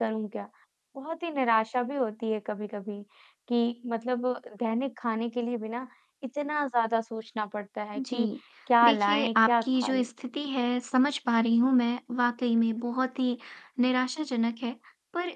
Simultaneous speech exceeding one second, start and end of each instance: 8.8-10.1

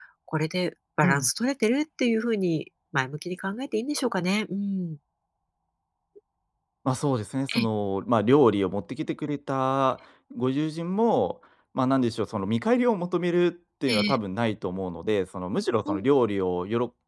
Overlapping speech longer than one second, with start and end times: none

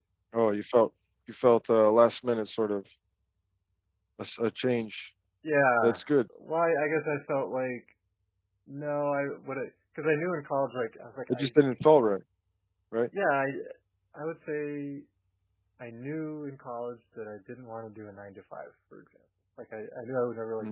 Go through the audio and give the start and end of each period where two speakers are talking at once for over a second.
none

